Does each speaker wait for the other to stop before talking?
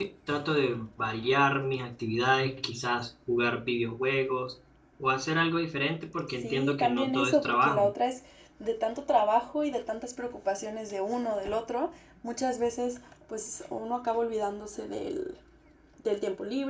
No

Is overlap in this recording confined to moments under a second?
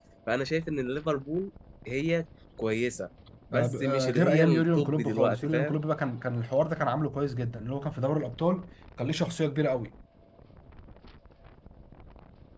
No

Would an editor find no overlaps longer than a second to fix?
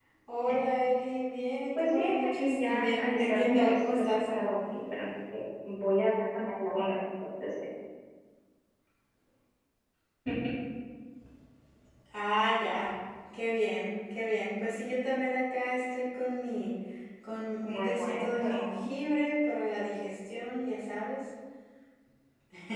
No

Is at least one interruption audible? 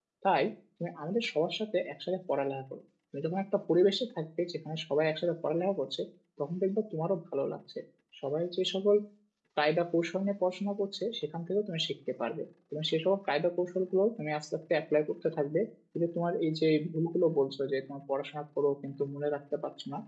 No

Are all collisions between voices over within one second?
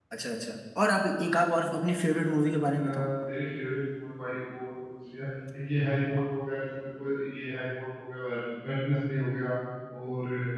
Yes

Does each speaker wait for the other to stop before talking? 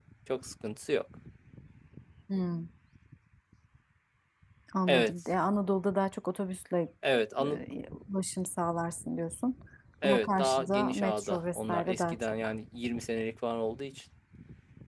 No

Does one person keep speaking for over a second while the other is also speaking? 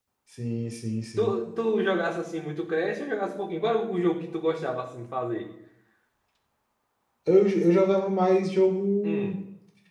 No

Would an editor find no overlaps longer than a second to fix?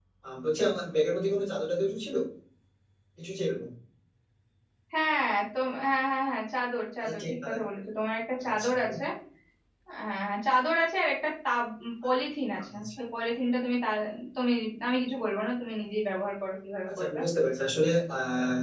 Yes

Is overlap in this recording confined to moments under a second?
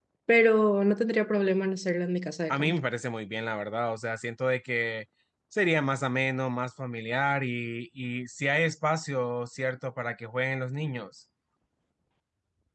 Yes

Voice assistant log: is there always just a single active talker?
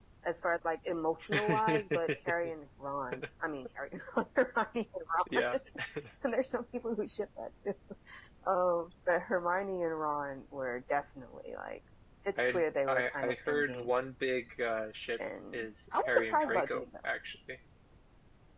No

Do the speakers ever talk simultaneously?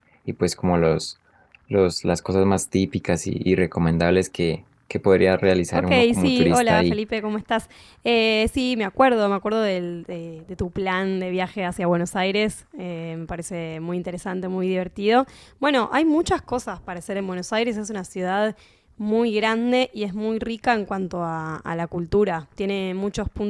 Yes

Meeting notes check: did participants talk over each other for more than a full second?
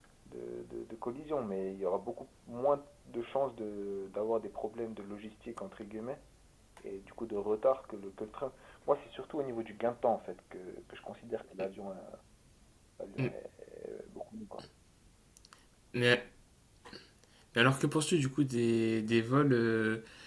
No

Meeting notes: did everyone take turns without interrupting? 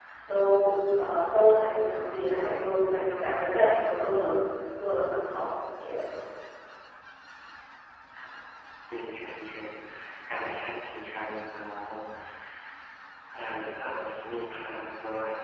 Yes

